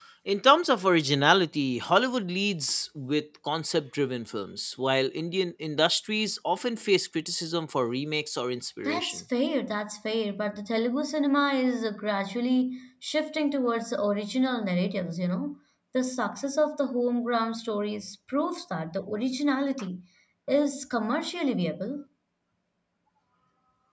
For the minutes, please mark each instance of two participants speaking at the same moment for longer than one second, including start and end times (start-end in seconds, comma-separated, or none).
none